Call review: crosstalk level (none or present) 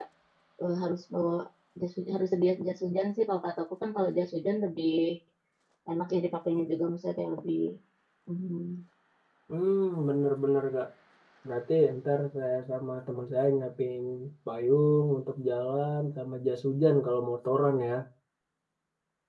none